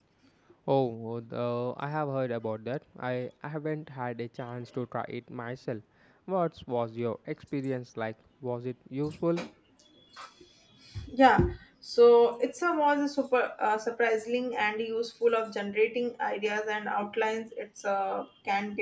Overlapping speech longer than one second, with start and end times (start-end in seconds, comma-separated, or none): none